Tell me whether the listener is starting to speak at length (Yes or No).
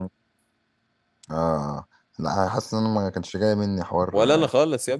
Yes